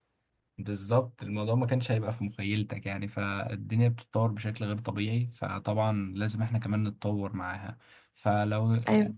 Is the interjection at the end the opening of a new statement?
No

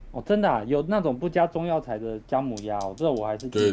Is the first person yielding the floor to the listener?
Yes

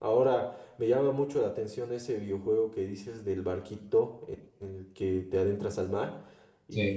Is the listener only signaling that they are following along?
Yes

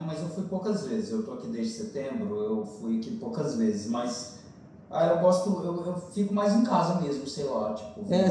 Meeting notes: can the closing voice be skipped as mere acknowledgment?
No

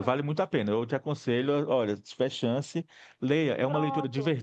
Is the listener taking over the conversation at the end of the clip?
No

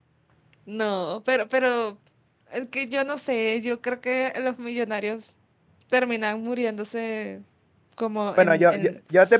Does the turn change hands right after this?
Yes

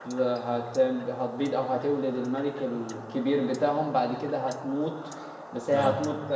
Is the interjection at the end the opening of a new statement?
No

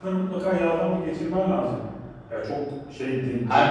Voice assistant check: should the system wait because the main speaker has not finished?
Yes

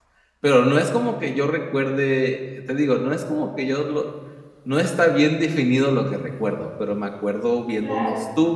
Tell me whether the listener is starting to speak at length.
No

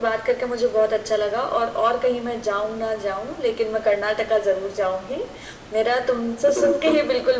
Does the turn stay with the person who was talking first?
Yes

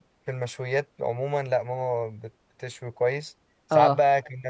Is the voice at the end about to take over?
No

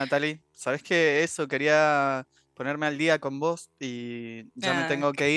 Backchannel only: Yes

